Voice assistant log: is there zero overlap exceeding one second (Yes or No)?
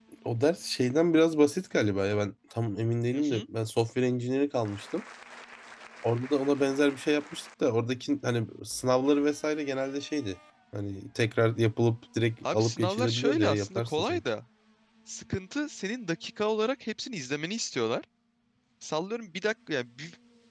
No